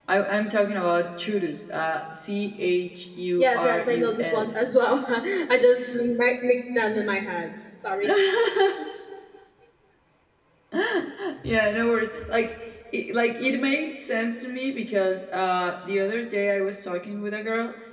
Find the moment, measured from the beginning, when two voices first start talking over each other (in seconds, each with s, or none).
3.4 s